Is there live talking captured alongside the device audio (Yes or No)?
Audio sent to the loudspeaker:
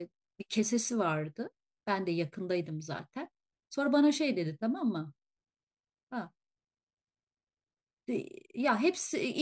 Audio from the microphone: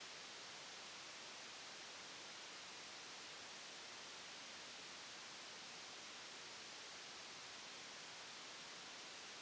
No